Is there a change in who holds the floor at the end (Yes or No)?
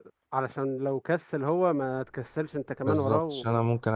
Yes